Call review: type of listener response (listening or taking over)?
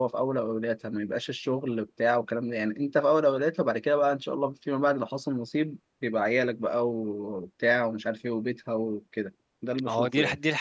taking over